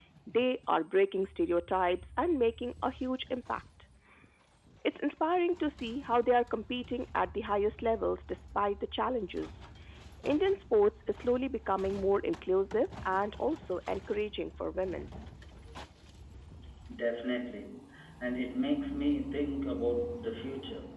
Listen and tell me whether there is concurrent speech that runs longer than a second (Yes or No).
No